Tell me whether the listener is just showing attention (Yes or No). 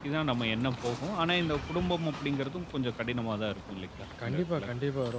No